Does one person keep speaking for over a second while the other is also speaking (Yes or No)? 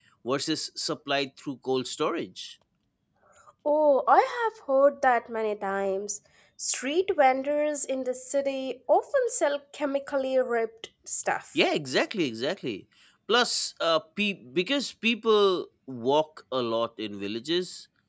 No